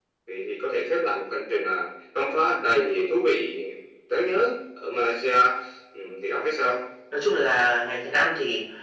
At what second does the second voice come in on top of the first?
none

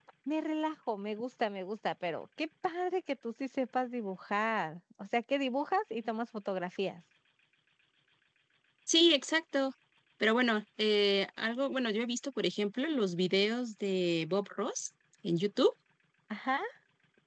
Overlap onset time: none

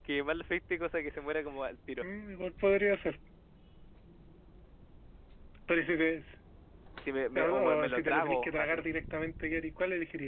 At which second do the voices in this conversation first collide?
7.3 s

